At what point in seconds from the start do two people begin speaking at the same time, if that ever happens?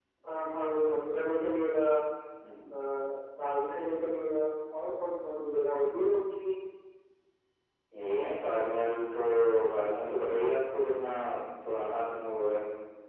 none

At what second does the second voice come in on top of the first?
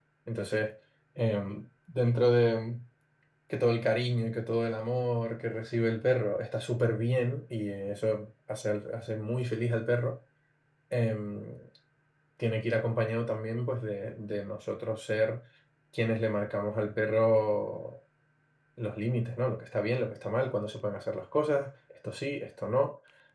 none

